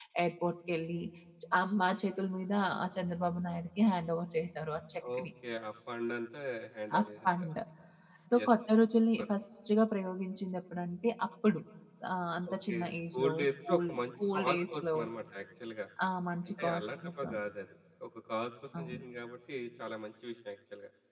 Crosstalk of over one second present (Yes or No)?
Yes